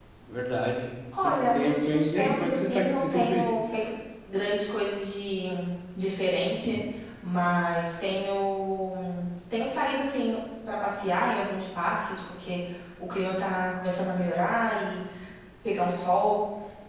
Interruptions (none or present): present